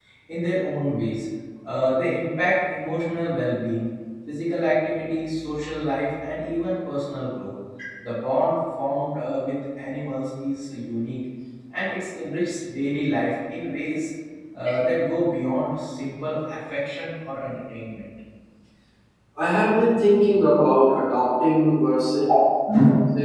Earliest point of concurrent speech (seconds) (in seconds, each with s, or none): none